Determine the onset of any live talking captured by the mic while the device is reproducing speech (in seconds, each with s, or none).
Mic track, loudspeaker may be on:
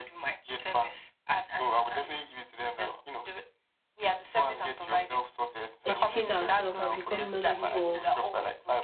5.8 s